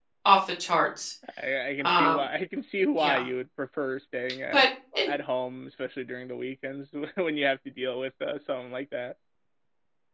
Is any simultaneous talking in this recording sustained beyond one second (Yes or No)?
No